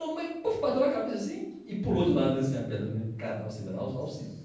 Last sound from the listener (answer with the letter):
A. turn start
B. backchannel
B